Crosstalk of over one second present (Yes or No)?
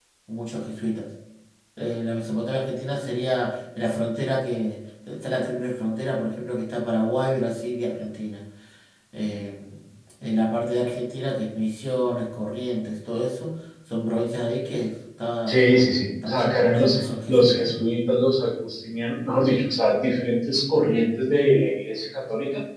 Yes